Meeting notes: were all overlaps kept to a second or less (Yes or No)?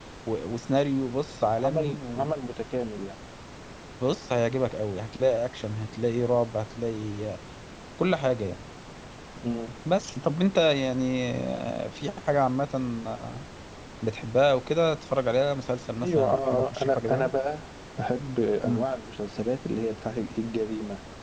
No